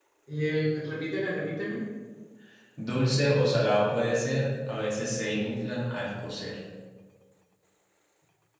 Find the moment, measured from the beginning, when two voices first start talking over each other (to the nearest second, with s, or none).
none